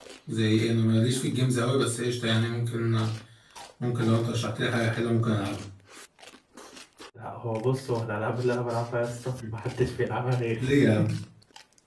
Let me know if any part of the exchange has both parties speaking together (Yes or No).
No